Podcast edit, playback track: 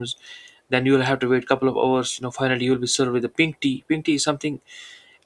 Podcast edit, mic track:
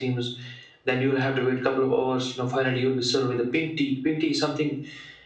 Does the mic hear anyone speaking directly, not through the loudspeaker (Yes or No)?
No